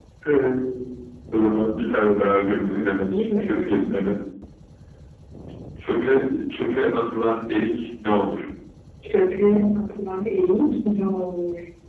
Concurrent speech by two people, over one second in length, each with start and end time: 2.5-3.8

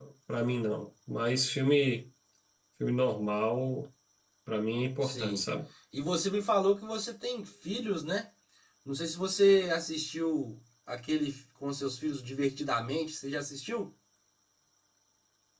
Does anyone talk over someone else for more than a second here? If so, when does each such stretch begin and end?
none

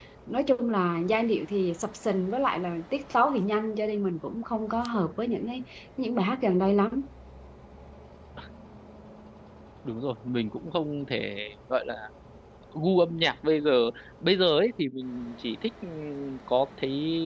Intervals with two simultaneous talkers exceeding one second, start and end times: none

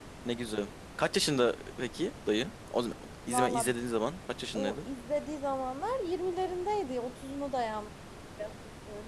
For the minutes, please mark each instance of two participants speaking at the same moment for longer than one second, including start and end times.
none

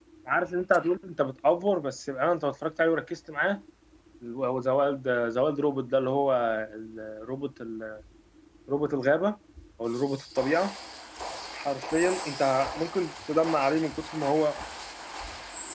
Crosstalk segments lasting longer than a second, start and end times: none

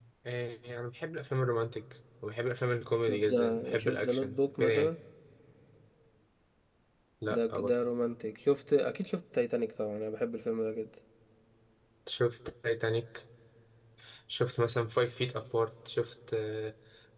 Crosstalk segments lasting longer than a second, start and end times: 3.1-4.9

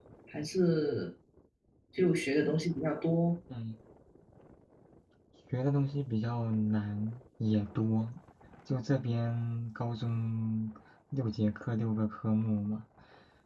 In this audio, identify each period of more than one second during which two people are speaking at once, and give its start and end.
none

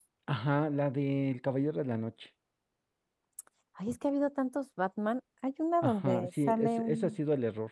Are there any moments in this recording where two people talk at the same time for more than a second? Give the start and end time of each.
5.8-7.2

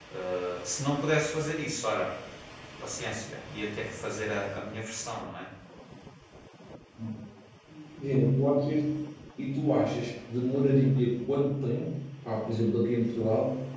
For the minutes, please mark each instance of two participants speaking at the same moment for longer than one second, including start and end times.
none

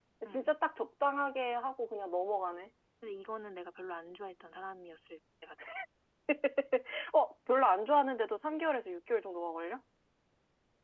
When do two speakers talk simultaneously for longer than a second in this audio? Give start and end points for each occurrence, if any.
none

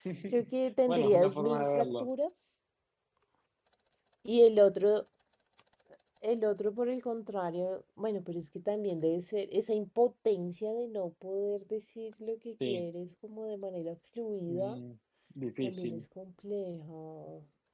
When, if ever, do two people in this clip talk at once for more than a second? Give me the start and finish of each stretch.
0.9-2.1

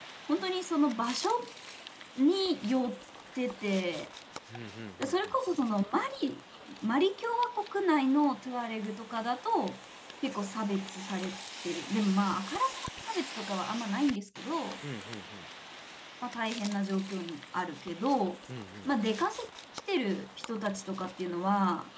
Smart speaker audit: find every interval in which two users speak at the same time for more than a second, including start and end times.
none

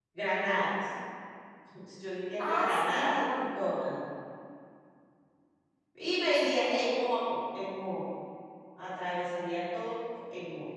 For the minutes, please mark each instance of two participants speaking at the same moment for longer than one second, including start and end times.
2.4-3.6

